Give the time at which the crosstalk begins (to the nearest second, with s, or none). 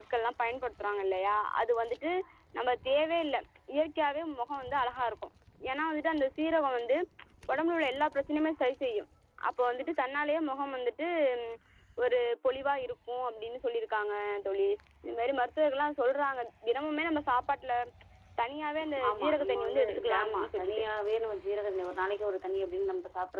19 s